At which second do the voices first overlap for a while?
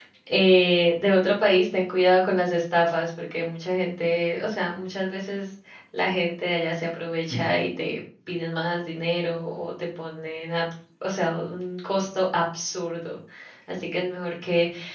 none

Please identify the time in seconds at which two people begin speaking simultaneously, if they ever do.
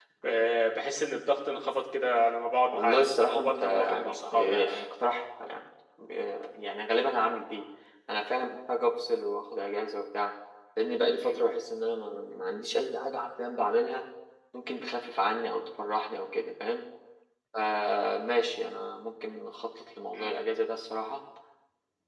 2.7 s

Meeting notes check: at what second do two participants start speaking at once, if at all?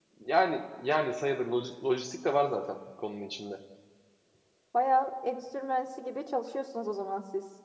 none

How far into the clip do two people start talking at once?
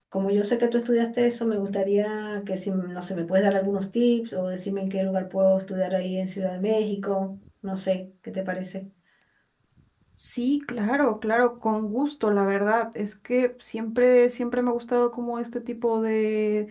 none

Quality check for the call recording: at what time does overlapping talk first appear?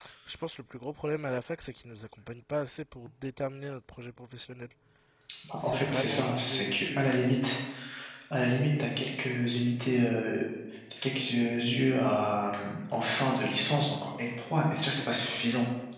5.6 s

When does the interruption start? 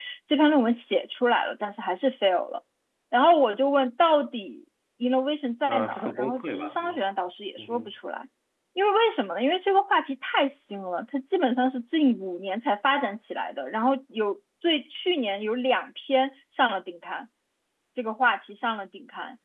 5.7 s

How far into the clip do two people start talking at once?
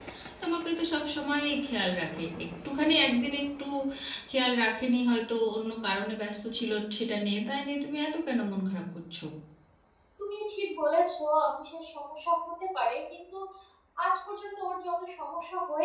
none

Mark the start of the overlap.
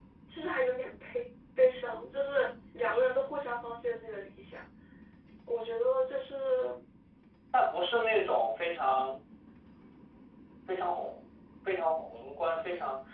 none

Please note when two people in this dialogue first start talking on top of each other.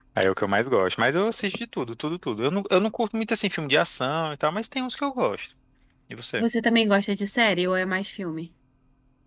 none

